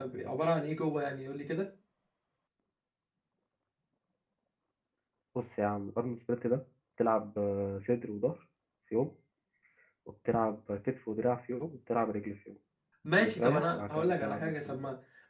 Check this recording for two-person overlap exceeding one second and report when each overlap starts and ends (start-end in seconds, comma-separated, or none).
13.2-14.8